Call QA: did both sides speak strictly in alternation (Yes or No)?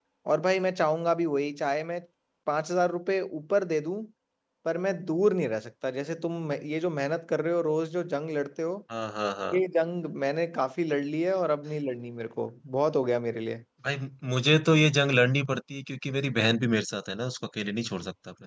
Yes